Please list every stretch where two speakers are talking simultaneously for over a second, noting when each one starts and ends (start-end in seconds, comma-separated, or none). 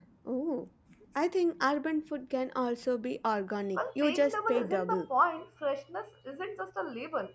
3.8-5.0